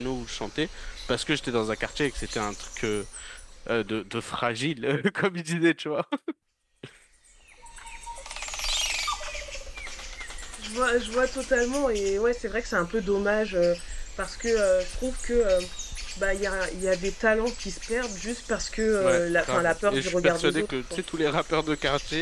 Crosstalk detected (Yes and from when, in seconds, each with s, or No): Yes, from 19.0 s